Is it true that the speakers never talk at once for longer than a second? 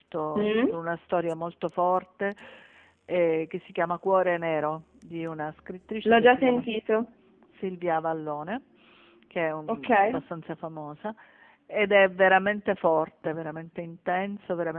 Yes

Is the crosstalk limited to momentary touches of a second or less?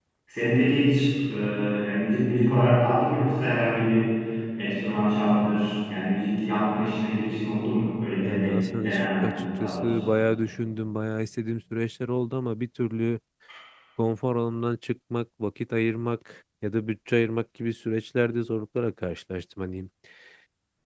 No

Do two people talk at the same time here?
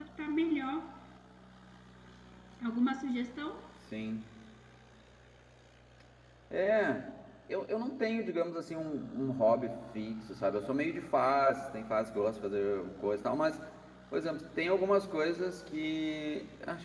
No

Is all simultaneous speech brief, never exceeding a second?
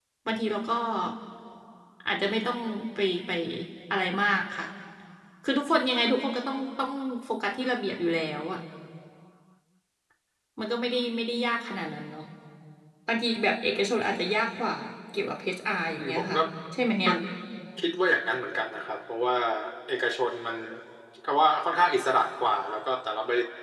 Yes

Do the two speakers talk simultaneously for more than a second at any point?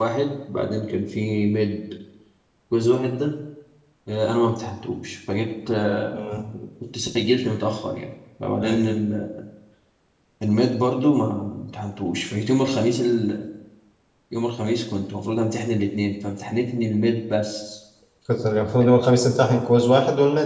No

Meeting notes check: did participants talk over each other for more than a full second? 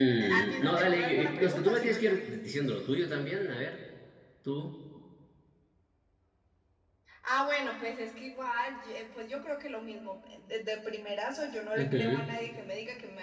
Yes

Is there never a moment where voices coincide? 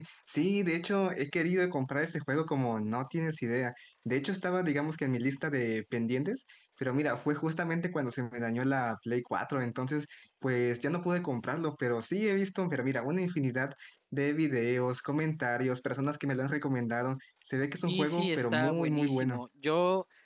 No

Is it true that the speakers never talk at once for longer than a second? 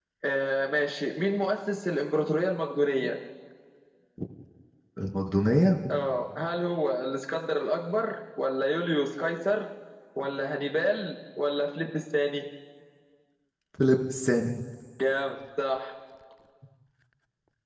Yes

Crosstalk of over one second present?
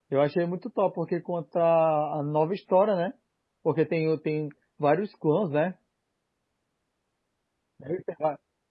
No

